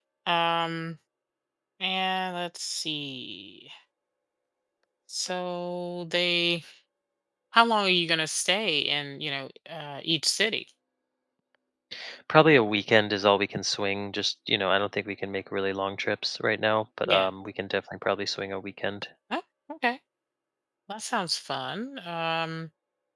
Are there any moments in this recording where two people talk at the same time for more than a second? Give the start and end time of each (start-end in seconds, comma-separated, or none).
none